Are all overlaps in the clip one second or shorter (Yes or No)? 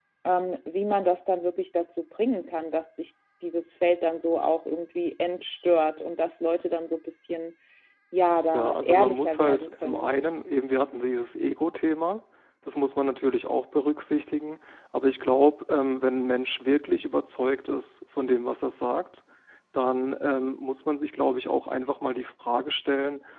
No